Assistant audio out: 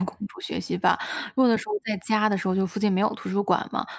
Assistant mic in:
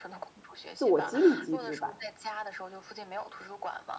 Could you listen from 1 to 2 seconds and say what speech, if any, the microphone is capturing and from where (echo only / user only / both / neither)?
both